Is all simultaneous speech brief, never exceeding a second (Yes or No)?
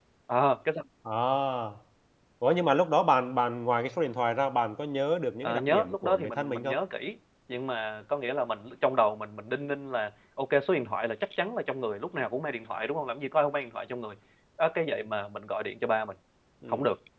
No